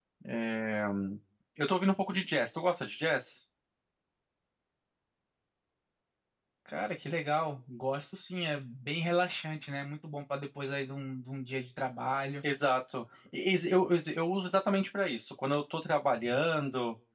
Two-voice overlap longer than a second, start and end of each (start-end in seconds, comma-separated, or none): none